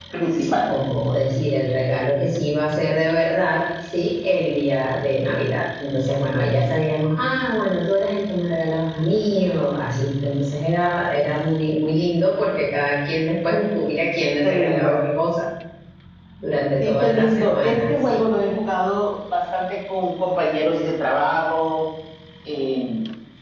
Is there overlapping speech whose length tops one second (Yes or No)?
Yes